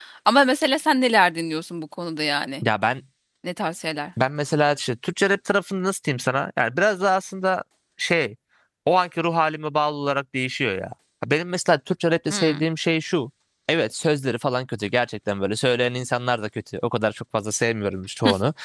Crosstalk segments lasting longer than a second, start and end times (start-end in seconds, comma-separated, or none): none